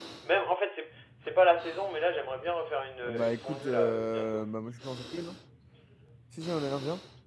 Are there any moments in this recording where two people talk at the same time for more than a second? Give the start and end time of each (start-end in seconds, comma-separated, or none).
3.0-4.5